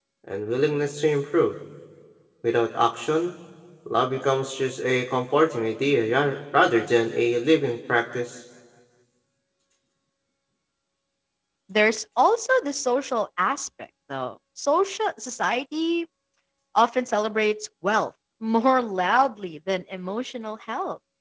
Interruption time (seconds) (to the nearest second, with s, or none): none